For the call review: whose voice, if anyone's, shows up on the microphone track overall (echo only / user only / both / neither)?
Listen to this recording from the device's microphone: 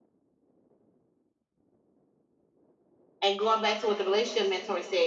user only